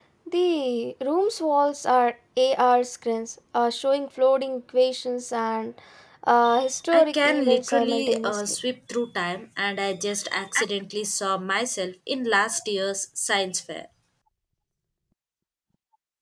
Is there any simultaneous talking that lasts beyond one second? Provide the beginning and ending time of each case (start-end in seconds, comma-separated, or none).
6.9-8.4